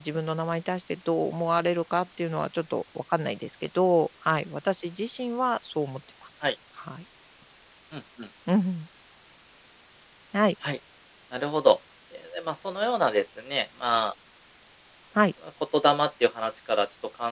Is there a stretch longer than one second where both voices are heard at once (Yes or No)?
No